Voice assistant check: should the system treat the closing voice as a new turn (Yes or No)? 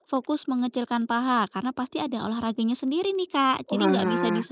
No